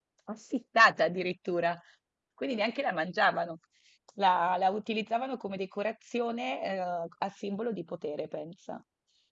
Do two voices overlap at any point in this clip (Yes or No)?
No